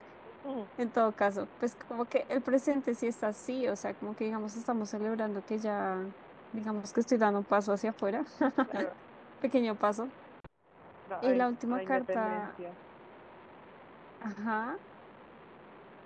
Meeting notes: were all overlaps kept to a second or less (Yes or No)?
No